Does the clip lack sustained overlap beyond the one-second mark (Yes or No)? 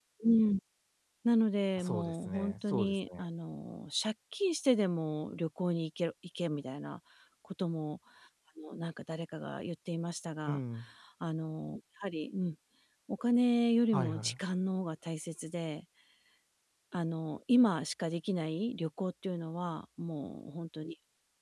No